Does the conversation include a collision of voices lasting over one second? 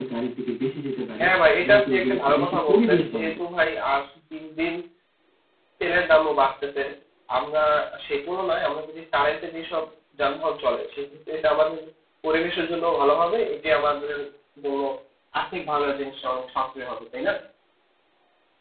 Yes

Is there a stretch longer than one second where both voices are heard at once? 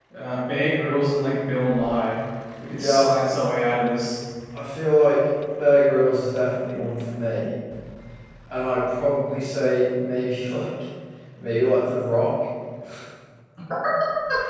No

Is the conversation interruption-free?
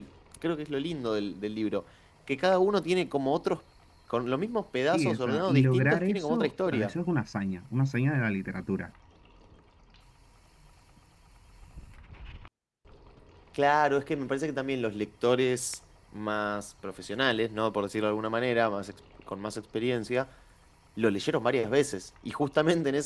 No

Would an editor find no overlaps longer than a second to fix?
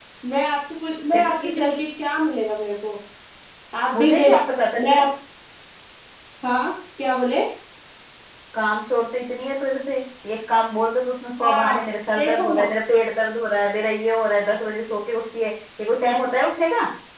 Yes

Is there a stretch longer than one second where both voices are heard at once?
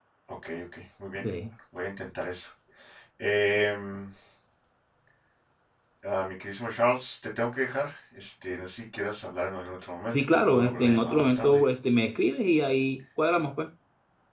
Yes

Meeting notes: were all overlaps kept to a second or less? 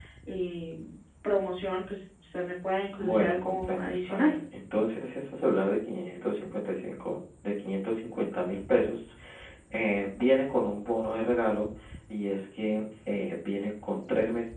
No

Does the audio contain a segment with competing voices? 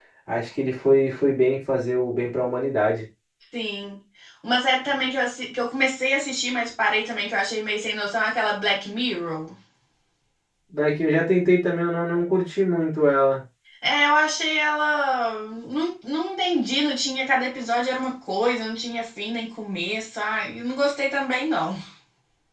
No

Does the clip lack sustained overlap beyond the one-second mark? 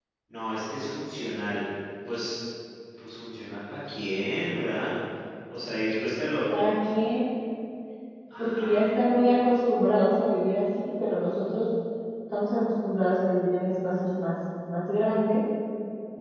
Yes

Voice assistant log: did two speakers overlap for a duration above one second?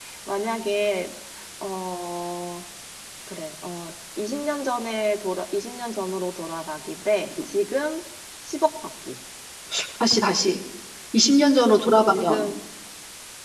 No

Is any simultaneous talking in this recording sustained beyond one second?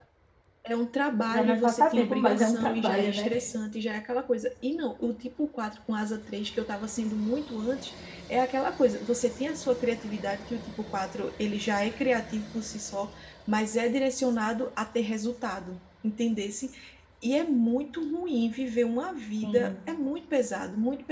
Yes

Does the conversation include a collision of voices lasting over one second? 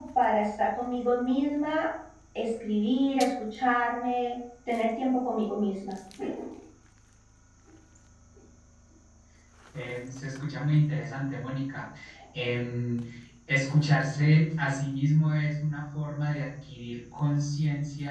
No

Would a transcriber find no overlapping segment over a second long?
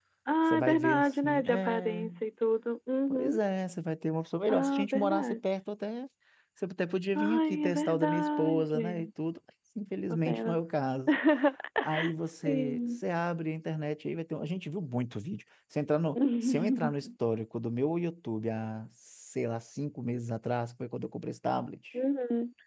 No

